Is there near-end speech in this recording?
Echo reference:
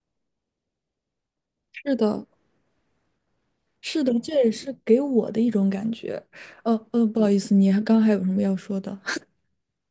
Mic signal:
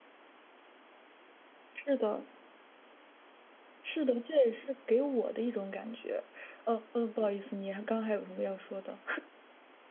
No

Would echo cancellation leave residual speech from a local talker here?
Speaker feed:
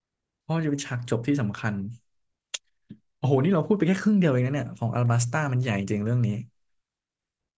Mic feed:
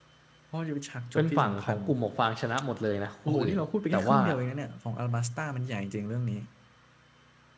Yes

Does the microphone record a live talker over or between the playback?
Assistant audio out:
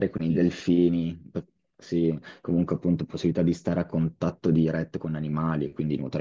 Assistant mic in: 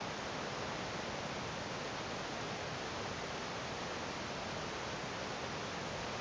No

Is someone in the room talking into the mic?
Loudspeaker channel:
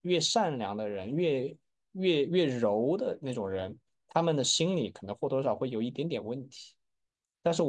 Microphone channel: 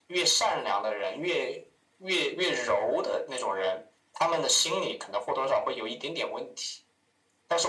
No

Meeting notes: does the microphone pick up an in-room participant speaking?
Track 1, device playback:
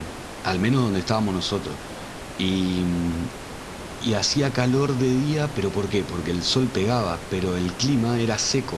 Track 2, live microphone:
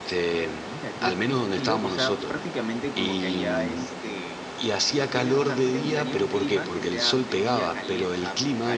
Yes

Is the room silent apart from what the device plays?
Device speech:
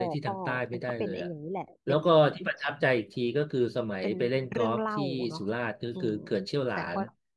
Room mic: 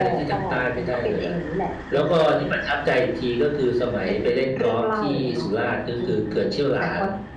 Yes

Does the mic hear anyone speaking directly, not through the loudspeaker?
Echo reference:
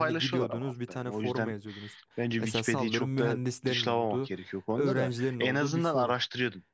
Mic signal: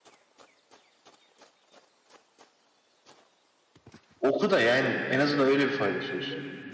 Yes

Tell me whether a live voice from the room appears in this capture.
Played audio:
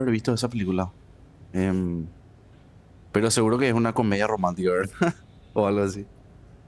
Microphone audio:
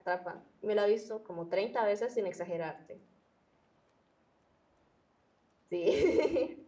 Yes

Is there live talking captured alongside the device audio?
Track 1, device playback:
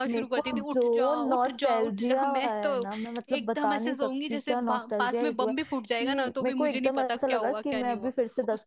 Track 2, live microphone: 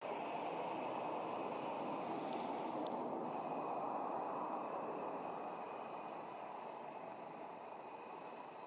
No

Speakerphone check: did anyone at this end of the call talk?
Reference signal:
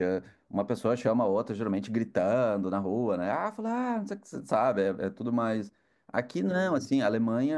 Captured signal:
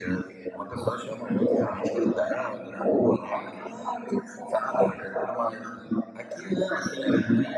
No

